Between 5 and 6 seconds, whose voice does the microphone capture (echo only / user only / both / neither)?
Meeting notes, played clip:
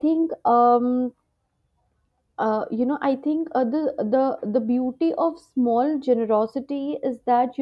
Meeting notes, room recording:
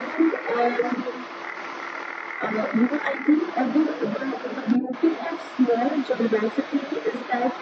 echo only